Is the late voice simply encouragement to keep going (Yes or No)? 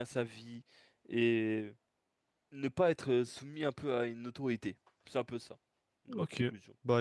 No